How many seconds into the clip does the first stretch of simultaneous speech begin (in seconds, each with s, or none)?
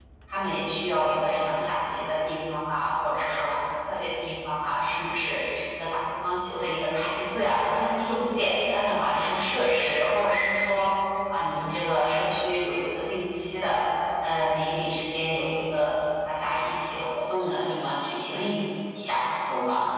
none